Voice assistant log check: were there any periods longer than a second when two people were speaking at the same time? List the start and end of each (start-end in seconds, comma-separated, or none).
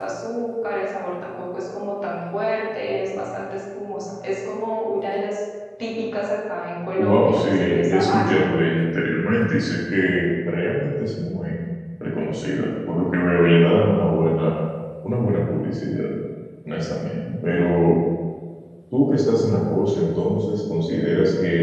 7.0-8.5